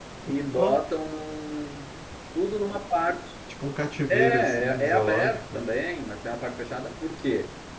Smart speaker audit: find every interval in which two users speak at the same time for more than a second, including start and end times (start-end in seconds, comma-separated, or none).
4.1-5.6